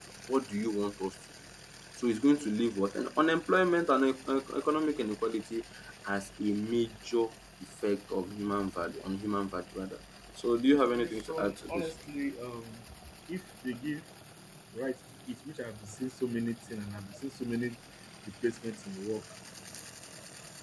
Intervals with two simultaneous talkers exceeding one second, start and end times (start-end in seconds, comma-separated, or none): 10.7-11.9